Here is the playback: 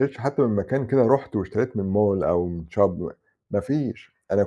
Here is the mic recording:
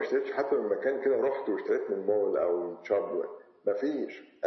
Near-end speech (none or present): none